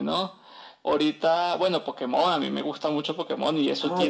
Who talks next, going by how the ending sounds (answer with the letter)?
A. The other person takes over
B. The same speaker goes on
A